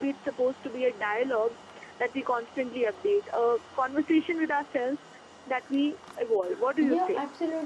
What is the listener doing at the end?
taking over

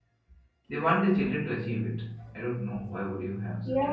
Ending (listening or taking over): taking over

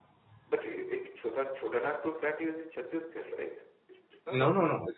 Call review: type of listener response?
taking over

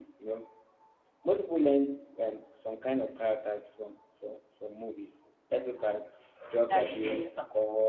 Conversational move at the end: listening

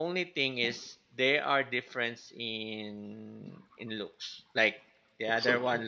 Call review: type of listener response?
listening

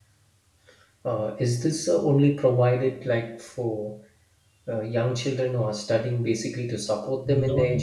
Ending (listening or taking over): taking over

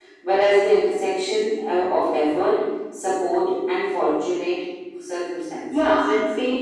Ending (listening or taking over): taking over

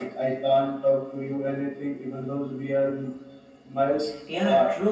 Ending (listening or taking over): taking over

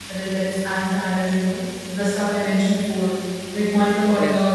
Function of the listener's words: listening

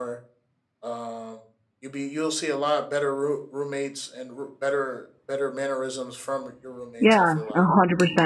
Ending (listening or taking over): taking over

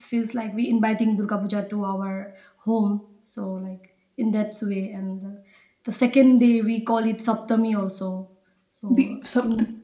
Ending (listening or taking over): taking over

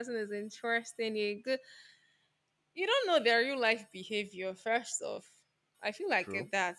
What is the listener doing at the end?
listening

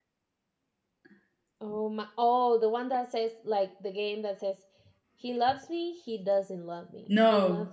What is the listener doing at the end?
taking over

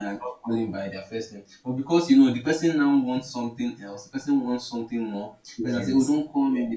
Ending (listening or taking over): listening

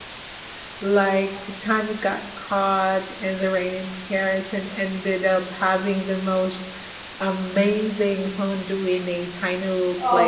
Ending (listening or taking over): taking over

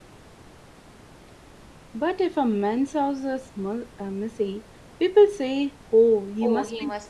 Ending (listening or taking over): taking over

